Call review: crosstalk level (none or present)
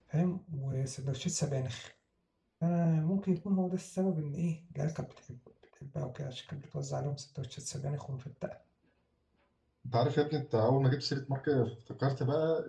none